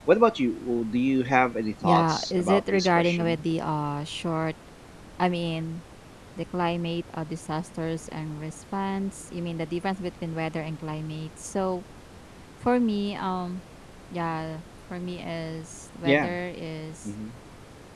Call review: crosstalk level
present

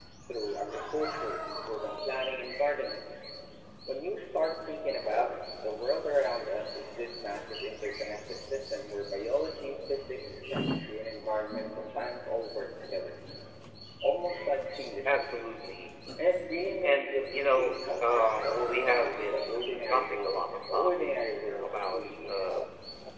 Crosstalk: present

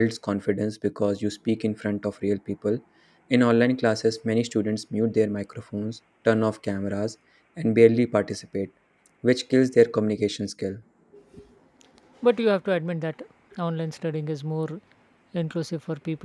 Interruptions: none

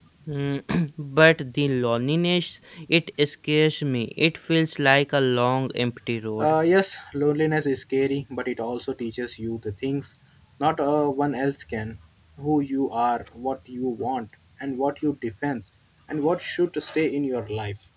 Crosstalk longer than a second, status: none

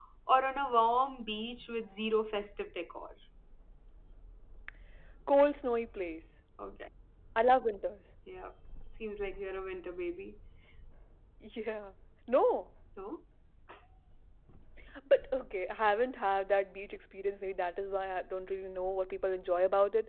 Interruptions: none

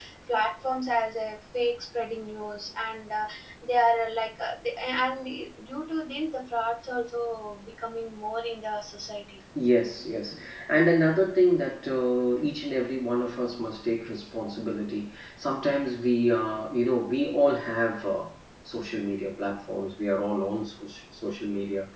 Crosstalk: none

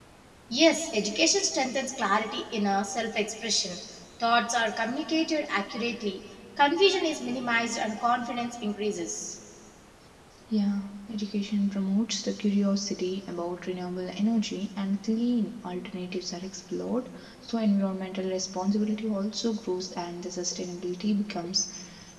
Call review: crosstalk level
none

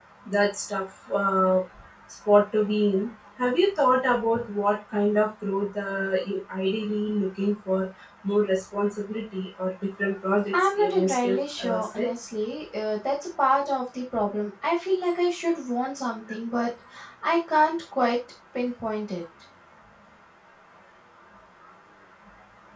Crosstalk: present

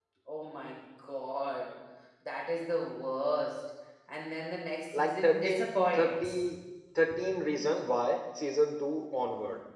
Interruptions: present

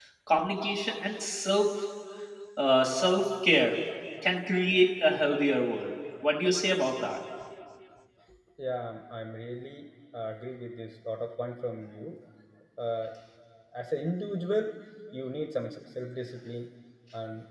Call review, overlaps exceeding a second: none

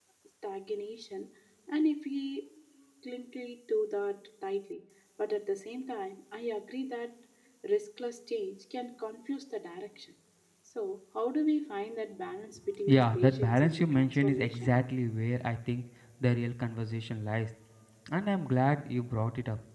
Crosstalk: present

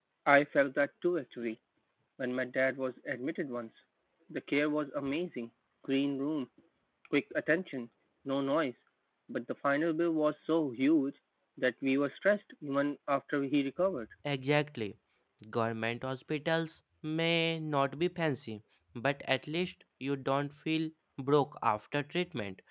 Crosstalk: none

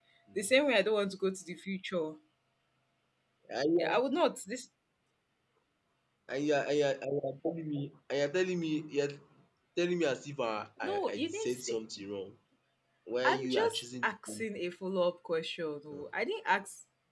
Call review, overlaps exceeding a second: present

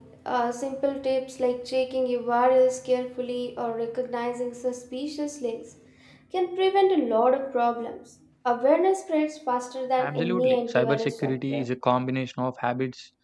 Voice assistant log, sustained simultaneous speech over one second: present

